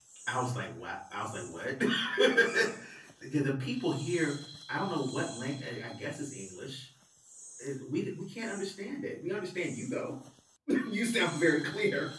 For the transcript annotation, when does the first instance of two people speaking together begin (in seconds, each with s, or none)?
none